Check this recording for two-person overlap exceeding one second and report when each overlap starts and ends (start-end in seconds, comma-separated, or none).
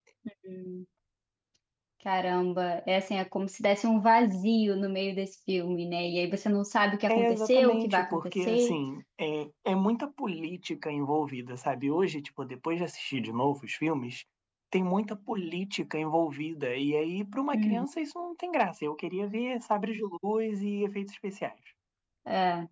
7.1-8.8